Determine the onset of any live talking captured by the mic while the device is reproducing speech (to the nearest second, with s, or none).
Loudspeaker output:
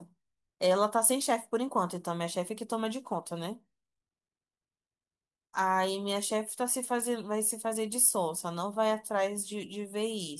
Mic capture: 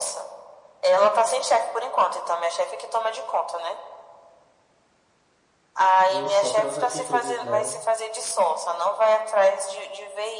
6 s